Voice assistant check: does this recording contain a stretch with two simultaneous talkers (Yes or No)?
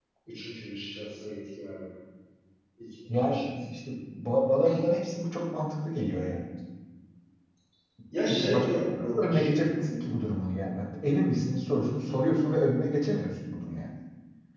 Yes